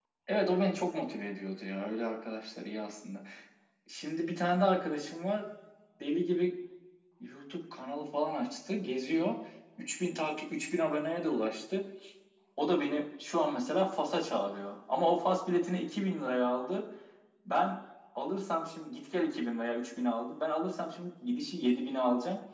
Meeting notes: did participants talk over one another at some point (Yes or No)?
No